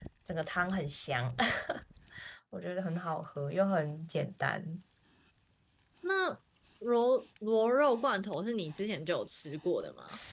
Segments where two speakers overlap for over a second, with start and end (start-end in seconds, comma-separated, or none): none